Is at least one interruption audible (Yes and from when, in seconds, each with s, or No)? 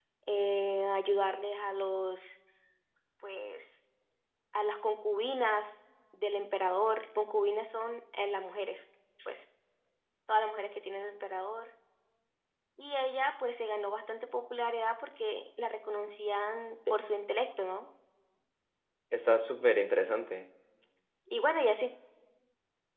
No